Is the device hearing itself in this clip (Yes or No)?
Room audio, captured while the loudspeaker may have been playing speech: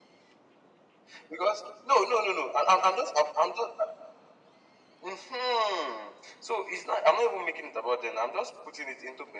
Yes